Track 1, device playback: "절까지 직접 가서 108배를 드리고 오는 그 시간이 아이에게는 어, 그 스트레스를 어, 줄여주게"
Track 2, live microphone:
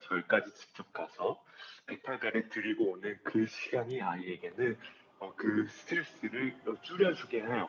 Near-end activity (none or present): none